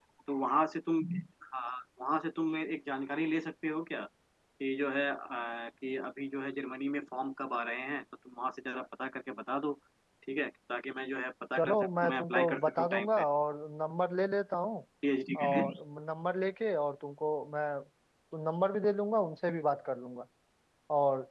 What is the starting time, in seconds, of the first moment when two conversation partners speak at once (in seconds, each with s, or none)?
11.6 s